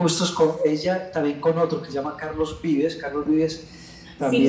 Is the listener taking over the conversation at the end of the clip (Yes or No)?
Yes